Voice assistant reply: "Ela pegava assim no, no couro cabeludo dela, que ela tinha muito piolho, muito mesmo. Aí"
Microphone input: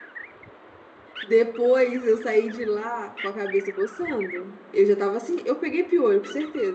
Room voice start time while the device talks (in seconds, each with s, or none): 1.2 s